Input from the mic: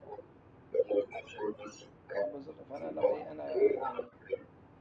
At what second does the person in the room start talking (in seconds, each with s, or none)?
2.1 s